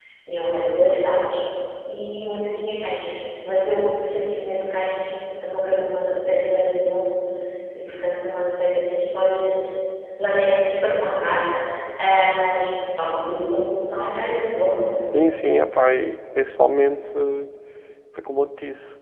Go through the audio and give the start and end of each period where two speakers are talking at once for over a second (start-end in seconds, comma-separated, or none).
none